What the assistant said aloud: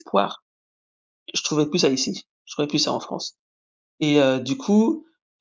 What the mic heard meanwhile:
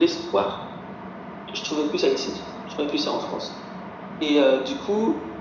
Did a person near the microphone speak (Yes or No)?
No